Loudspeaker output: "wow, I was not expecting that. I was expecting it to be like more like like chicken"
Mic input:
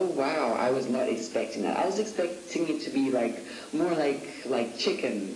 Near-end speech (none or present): none